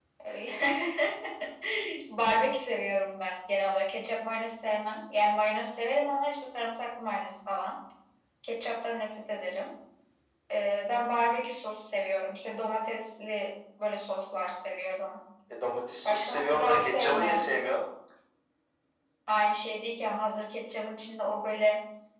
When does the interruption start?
16 s

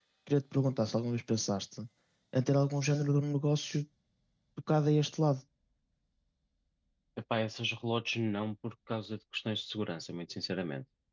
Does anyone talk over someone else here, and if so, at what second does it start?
none

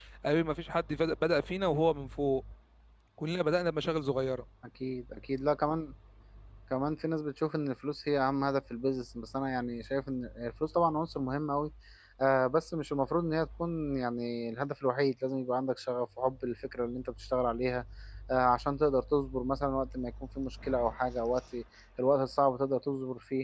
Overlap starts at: none

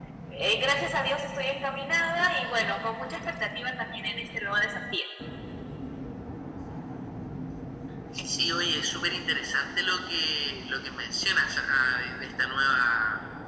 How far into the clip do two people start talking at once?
none

